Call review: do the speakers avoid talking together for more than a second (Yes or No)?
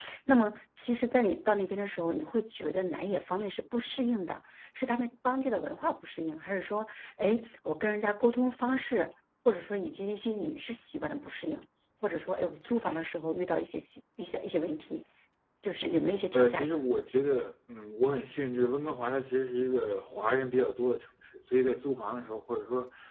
Yes